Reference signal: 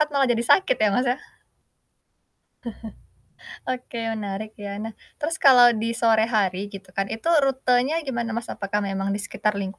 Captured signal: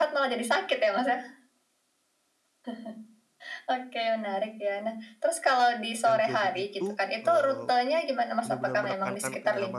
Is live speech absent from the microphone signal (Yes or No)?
No